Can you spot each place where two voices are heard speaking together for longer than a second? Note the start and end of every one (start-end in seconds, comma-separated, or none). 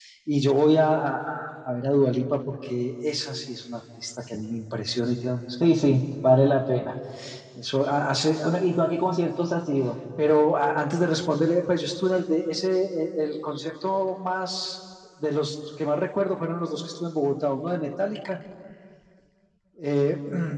none